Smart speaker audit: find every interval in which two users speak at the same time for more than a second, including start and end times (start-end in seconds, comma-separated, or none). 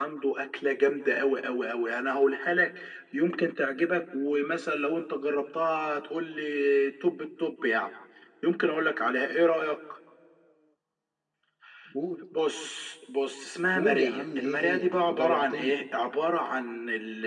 13.7-15.8